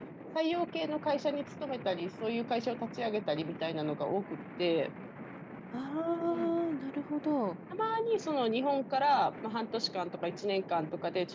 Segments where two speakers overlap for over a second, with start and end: none

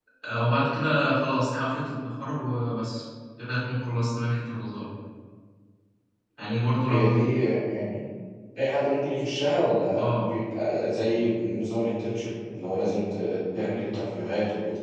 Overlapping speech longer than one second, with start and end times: none

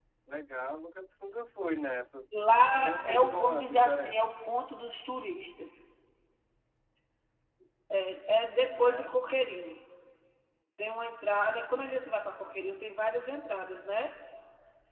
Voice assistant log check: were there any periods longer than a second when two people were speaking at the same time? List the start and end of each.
3.0-4.2

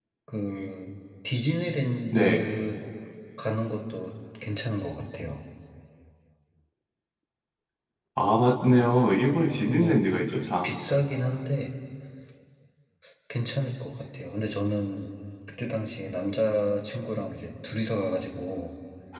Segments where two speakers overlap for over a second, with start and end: none

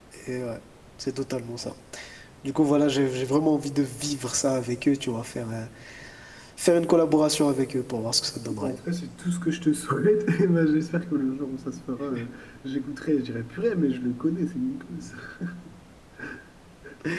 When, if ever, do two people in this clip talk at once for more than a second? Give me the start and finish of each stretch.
none

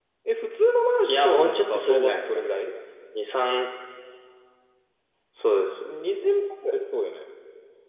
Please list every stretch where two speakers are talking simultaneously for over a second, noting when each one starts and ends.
1.1-2.7

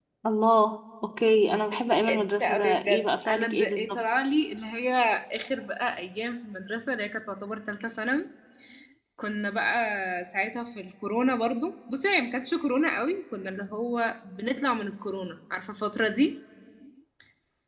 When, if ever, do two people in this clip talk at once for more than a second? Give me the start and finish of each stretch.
1.7-4.0

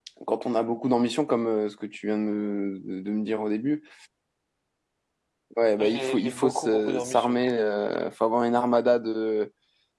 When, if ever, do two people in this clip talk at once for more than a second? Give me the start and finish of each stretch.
5.8-7.4

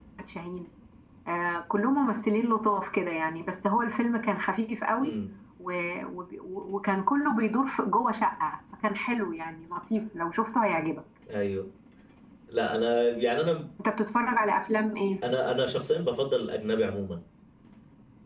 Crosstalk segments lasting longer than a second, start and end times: none

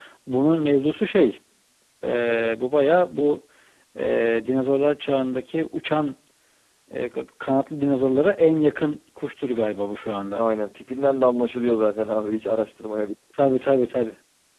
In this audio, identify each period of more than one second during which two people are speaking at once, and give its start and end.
none

